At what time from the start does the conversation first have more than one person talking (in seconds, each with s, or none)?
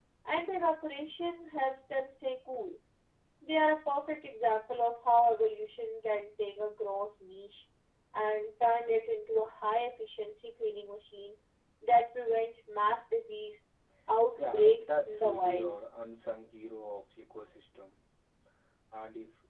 14.4 s